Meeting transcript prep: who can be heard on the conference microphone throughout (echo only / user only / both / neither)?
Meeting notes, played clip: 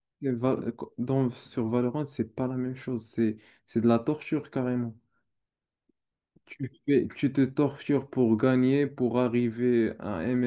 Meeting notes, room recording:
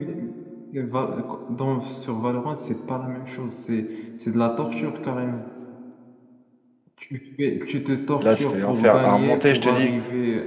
both